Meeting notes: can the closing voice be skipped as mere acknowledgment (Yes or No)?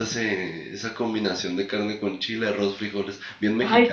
No